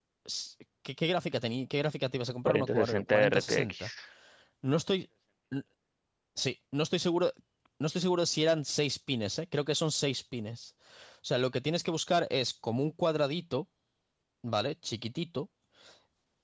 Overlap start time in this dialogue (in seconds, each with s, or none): 2.5 s